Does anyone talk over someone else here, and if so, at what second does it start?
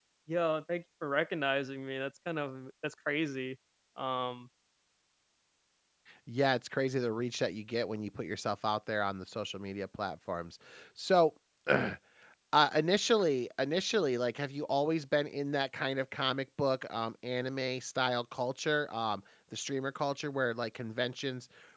none

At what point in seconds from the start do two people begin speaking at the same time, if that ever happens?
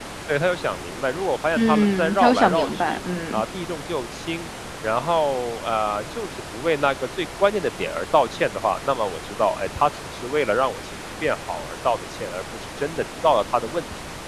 1.6 s

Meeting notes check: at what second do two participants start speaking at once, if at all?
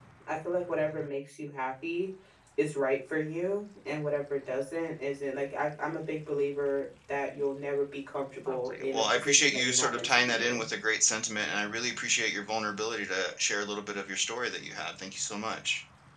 8.5 s

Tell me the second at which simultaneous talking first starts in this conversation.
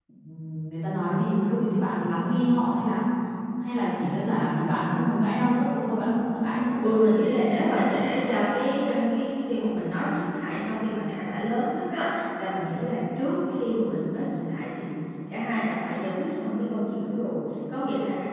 none

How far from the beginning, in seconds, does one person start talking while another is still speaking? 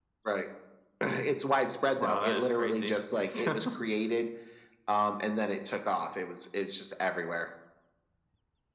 2.0 s

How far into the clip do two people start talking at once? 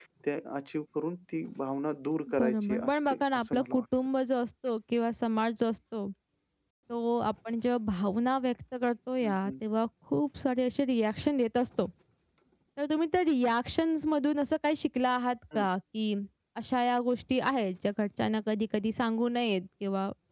2.4 s

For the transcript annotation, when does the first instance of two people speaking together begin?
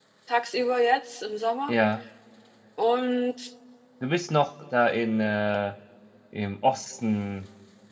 none

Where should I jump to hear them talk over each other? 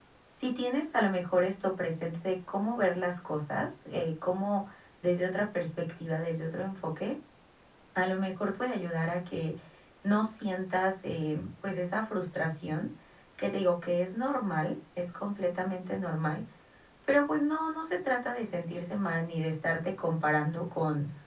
none

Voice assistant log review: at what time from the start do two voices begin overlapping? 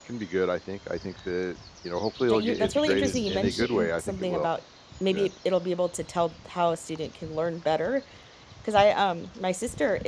2.2 s

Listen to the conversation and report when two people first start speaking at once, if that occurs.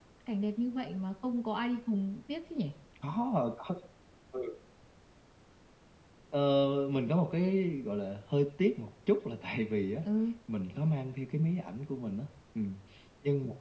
none

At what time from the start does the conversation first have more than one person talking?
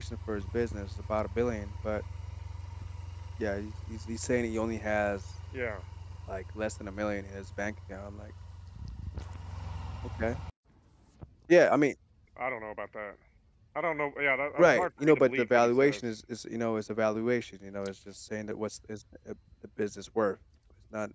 14.6 s

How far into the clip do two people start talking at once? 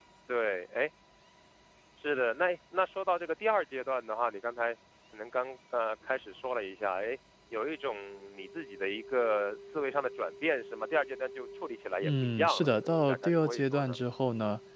12.0 s

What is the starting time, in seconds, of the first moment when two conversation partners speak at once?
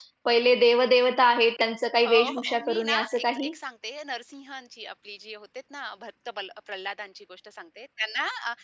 2.0 s

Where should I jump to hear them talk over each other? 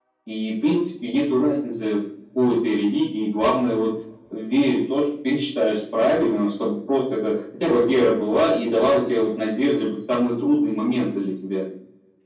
none

